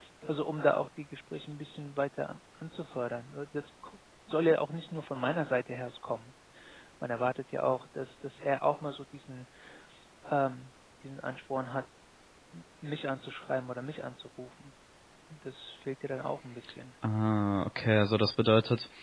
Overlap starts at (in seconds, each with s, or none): none